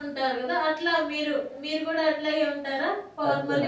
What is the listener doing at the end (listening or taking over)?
taking over